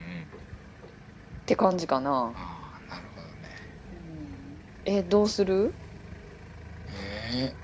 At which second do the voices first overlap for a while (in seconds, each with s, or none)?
none